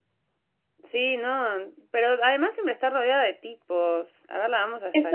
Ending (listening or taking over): taking over